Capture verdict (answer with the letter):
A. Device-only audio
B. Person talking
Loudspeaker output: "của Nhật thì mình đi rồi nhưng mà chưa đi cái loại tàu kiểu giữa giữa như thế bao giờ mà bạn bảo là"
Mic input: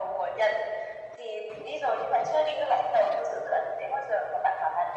A